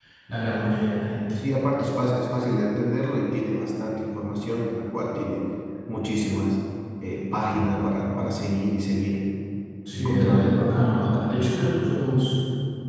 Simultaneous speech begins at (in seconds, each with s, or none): 9.9 s